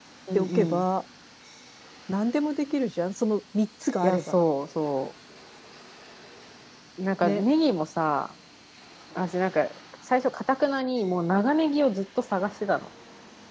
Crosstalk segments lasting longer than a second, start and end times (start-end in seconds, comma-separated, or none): none